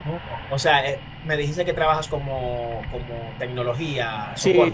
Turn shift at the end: Yes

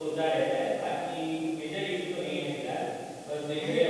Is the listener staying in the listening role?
Yes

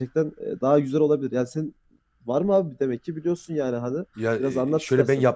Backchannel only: No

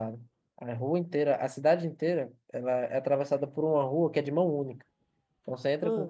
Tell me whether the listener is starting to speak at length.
No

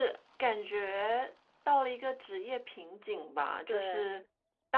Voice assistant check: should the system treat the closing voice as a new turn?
No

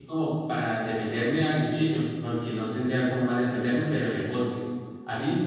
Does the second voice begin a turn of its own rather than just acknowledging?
No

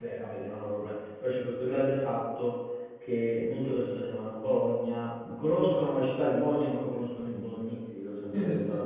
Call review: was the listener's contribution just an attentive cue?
No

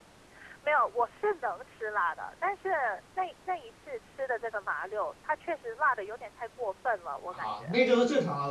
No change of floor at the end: No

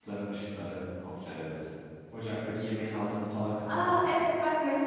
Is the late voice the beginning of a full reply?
Yes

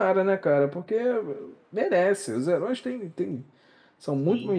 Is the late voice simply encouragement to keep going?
Yes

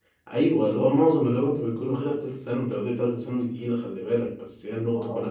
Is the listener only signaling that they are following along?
Yes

